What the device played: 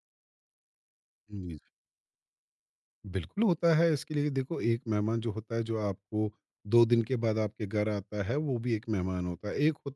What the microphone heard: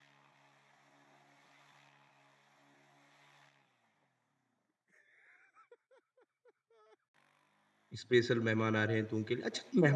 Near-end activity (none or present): present